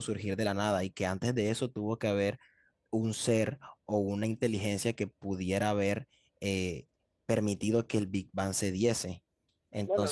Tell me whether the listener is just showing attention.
No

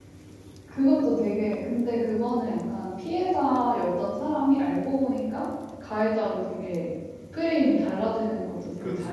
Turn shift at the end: Yes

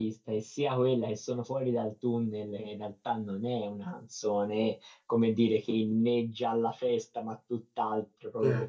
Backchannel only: Yes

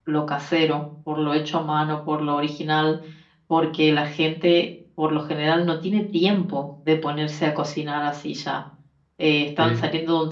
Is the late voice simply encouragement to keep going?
Yes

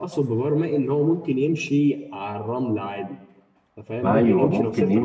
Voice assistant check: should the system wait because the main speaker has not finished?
No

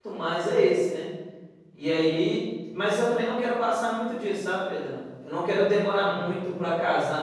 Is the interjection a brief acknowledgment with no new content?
Yes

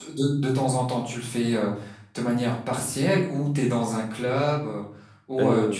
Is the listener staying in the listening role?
No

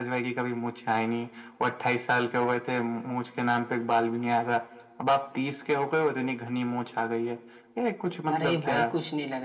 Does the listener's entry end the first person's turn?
Yes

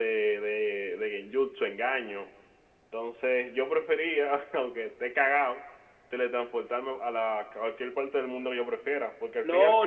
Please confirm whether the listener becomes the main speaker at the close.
Yes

